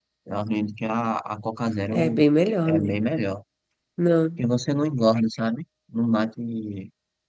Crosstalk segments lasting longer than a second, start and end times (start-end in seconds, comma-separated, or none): none